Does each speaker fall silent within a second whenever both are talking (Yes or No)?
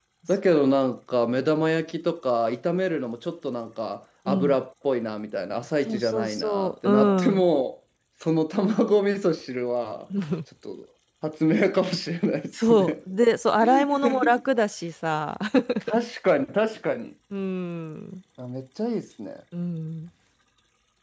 No